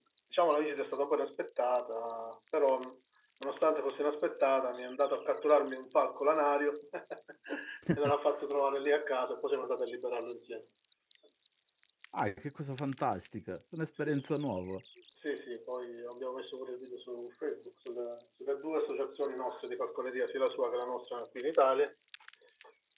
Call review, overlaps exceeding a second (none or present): none